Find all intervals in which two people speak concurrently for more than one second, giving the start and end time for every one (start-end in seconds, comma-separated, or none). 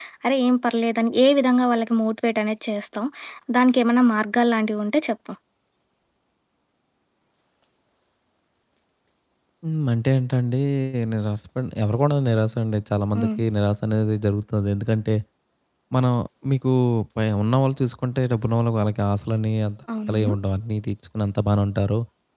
none